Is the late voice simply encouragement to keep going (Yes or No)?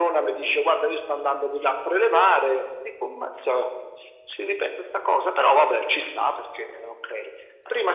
Yes